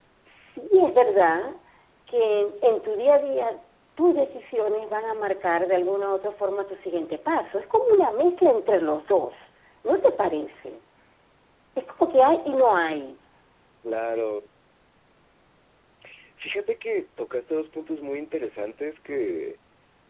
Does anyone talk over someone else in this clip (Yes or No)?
No